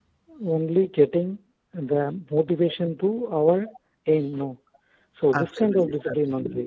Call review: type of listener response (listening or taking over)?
taking over